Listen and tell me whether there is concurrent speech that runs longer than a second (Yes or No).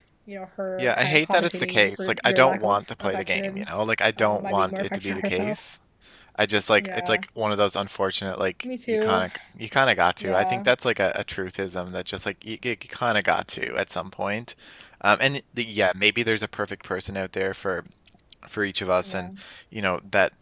Yes